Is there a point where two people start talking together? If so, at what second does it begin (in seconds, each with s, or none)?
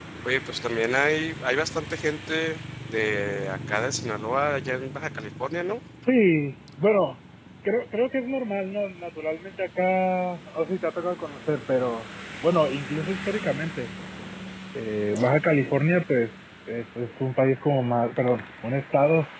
none